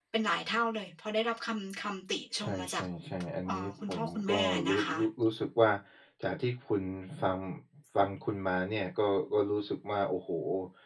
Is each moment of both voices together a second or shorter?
No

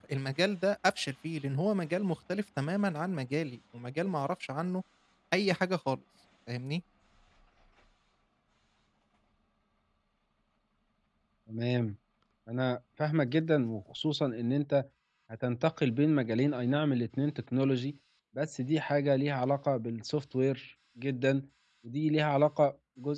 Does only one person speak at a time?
Yes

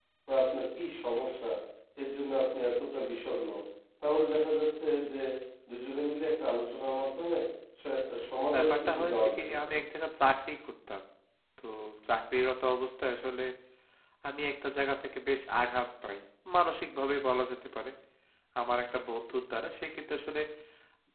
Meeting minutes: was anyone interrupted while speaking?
Yes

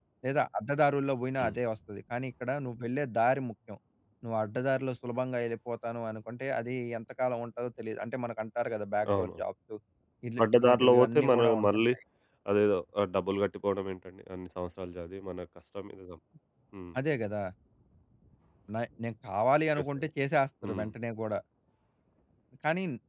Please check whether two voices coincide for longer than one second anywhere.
Yes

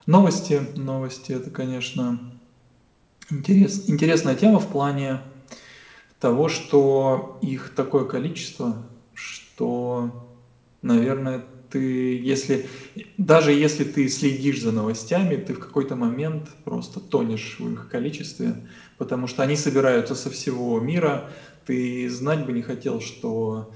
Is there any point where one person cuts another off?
No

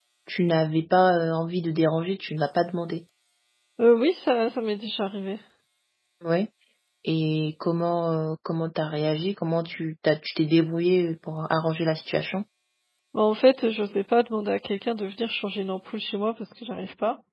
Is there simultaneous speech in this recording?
No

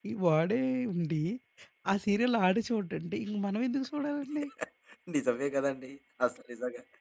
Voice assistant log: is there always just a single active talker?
Yes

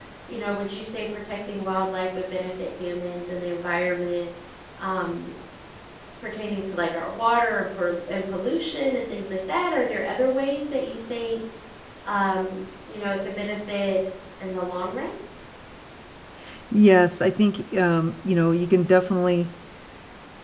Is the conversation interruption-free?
Yes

